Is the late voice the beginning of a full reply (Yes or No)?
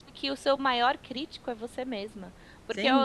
No